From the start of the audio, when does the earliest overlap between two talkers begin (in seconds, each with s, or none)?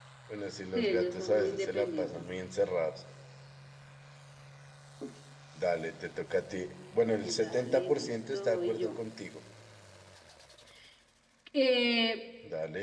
0.8 s